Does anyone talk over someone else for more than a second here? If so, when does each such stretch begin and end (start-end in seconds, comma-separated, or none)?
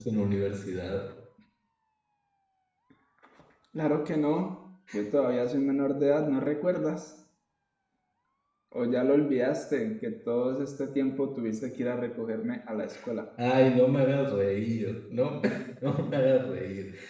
none